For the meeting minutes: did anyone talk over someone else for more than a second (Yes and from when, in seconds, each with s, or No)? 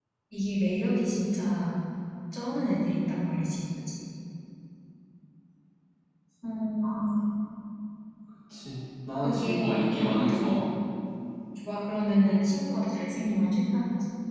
Yes, from 9.2 s